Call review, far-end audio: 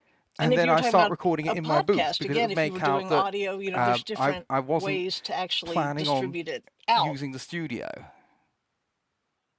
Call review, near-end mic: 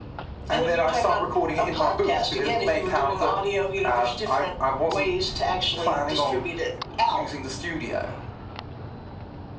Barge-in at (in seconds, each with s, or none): none